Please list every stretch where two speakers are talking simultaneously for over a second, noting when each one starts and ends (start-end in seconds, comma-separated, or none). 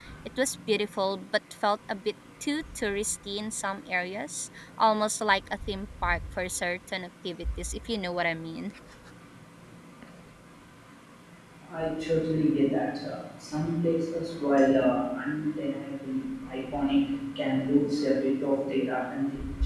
none